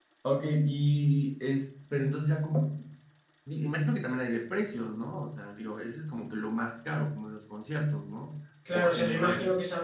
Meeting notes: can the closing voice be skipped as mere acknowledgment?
No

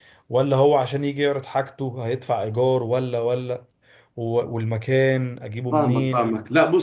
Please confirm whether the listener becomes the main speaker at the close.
Yes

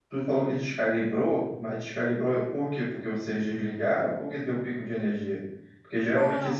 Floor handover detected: No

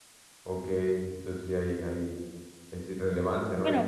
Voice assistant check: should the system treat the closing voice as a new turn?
Yes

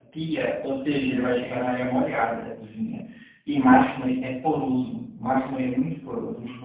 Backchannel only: Yes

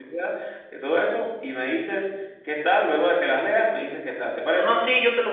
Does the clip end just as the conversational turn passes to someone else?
Yes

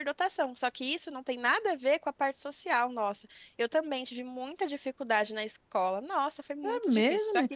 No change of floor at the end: No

